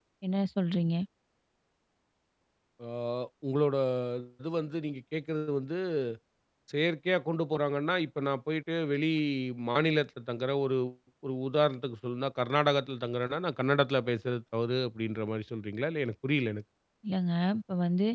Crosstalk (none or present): none